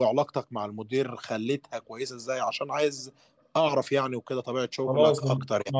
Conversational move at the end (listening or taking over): taking over